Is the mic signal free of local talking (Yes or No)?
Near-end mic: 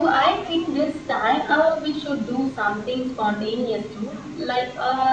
Yes